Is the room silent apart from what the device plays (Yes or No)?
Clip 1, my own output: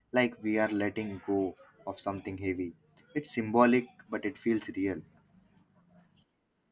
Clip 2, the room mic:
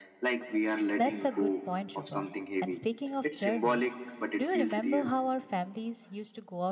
No